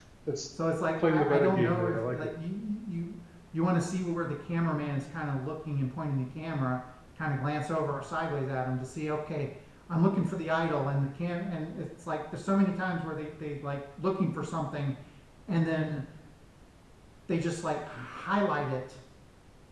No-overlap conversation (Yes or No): No